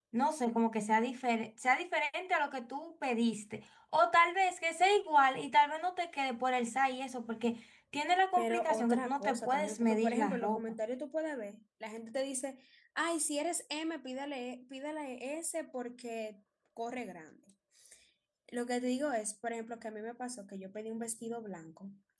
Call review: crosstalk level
present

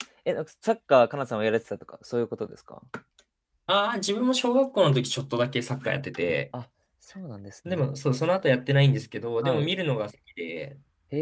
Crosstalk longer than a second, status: none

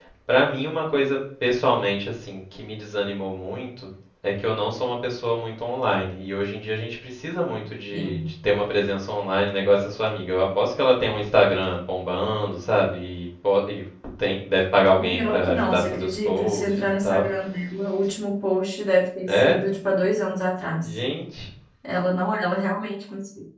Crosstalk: present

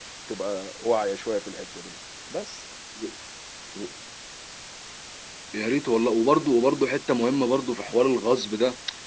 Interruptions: none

